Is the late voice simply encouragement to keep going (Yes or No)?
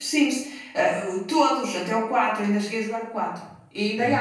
Yes